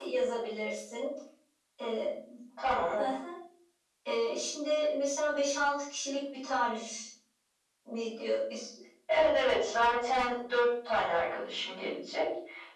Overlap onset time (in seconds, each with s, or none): none